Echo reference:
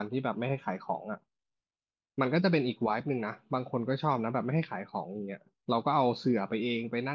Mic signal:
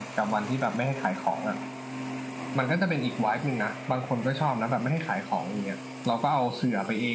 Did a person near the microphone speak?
No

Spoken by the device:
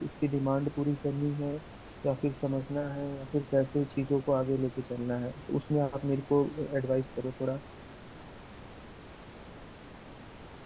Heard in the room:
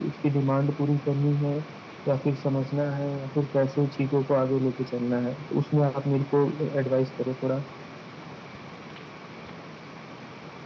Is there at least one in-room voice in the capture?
No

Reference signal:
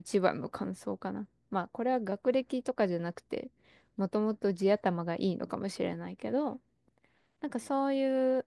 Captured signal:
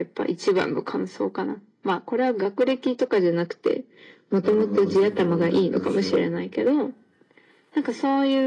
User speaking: Yes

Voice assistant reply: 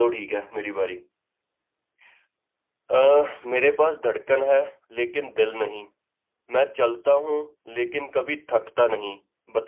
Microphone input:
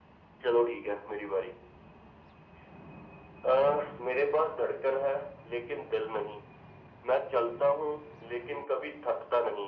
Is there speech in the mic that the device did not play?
No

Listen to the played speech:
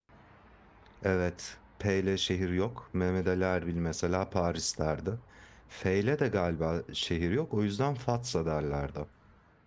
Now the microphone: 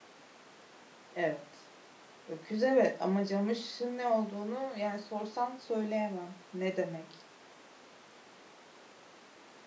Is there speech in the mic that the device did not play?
Yes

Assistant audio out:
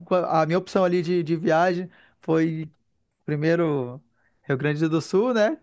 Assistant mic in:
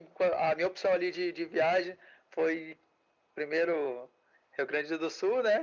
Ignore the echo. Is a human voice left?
No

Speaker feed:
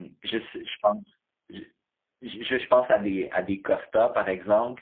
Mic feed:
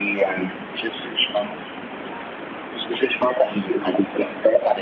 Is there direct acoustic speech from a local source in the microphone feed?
No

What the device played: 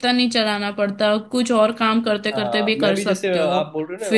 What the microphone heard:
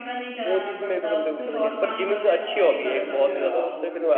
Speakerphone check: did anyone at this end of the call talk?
Yes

